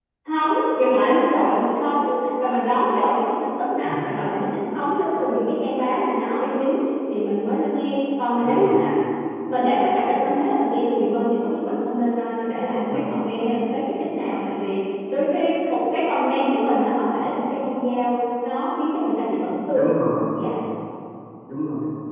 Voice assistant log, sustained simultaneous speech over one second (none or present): none